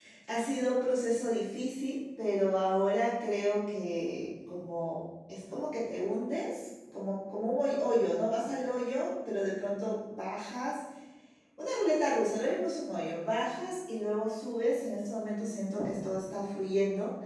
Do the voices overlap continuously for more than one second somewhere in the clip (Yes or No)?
No